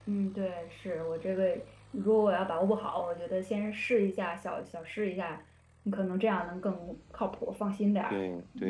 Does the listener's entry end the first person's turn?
Yes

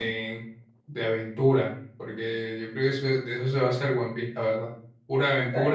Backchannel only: Yes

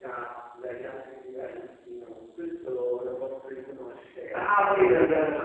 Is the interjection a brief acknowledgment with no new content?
No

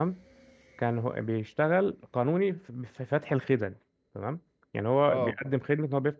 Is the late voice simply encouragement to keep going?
Yes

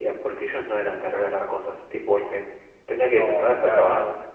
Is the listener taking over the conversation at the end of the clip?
Yes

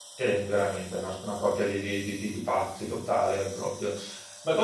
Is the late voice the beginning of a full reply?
No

